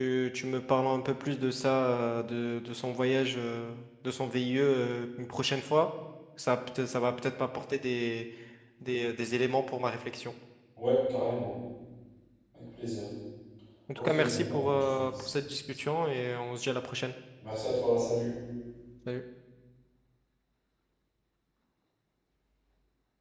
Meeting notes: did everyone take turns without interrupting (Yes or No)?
No